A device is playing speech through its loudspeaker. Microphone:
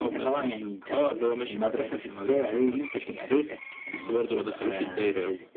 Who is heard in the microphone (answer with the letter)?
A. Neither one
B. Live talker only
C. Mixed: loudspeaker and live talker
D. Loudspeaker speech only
D